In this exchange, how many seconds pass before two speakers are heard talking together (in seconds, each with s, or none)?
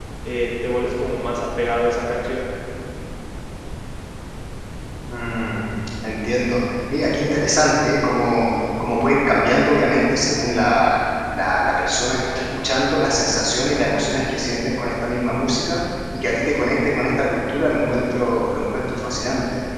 none